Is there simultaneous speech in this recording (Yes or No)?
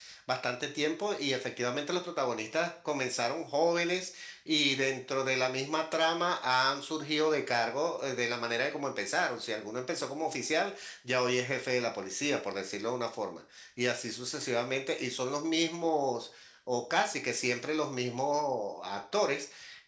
No